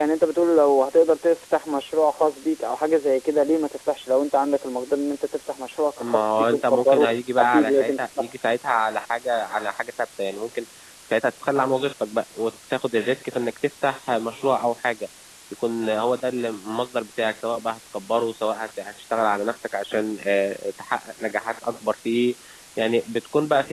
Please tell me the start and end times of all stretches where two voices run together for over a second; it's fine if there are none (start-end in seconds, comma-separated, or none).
6.1-8.2